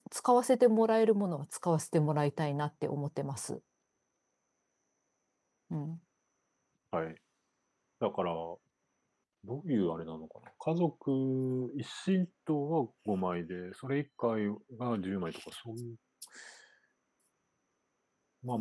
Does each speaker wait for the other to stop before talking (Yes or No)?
Yes